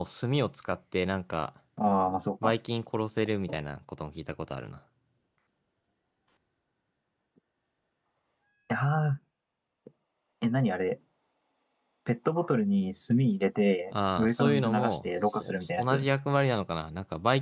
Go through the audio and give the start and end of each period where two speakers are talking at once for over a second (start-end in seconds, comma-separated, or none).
13.9-16.0